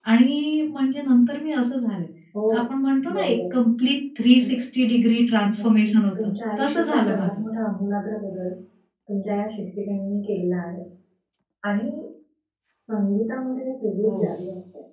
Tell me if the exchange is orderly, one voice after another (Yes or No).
No